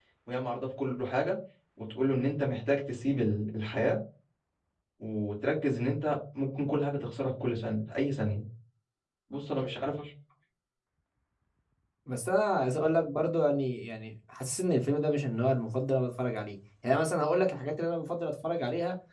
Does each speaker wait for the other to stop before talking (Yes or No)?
Yes